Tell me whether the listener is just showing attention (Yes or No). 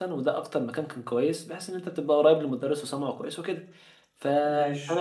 Yes